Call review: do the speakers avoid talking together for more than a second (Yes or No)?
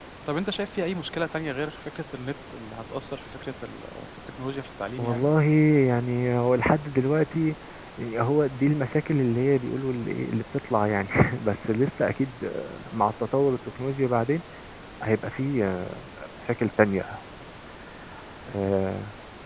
Yes